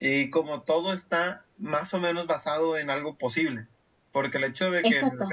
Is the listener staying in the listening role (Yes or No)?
Yes